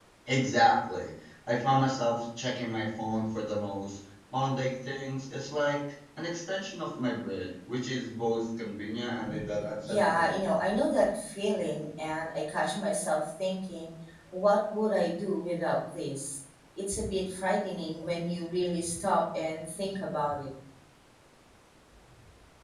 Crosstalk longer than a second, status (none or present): none